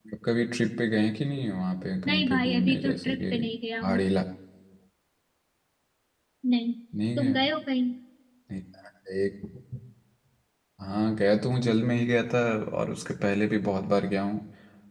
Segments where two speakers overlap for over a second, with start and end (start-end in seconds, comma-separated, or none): 2.1-3.3